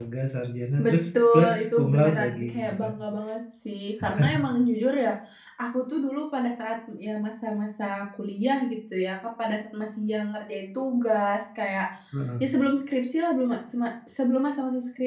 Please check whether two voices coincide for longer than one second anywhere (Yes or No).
Yes